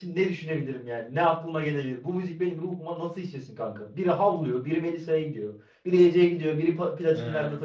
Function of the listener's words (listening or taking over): taking over